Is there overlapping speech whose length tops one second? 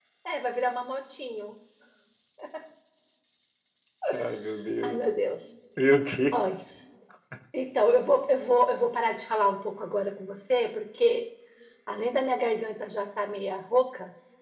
No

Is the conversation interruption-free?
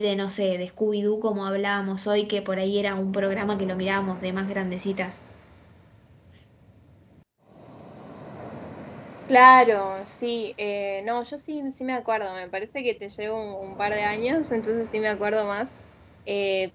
Yes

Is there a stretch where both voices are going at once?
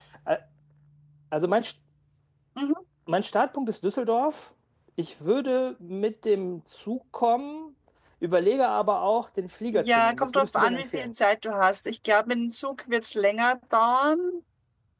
Yes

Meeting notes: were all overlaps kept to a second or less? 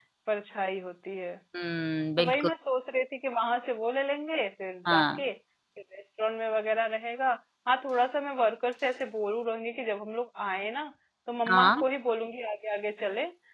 Yes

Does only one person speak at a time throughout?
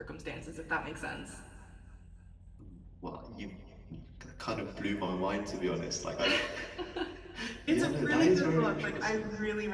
No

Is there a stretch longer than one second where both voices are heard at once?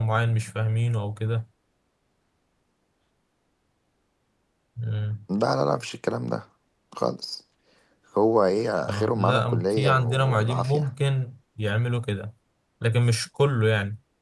Yes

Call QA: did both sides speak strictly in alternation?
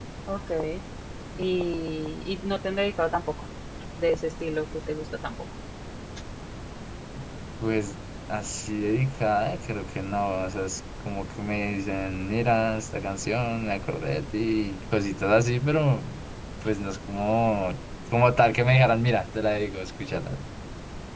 Yes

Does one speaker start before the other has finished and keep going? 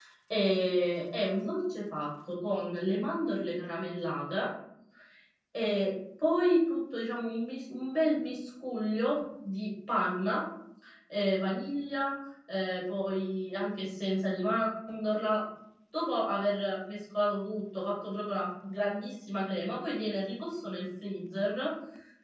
No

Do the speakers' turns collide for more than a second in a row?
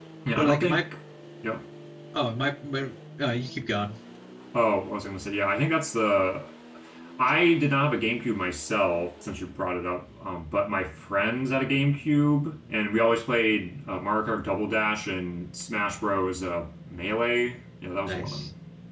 No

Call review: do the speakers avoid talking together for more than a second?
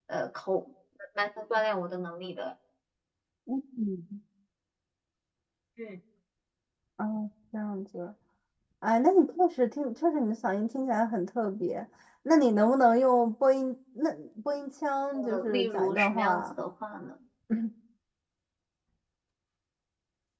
No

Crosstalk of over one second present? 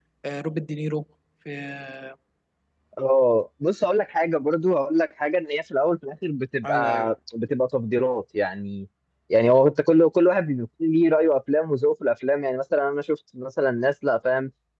No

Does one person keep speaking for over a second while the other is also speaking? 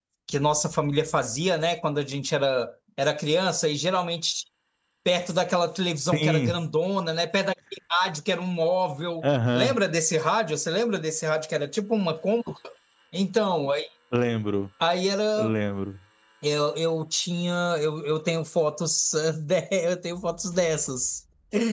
No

